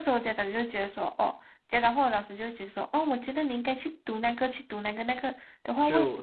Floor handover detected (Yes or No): No